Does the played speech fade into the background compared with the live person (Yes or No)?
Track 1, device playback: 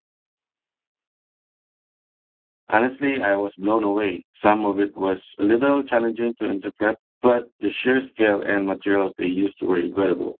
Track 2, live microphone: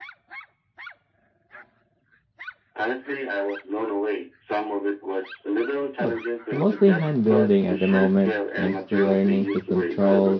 Yes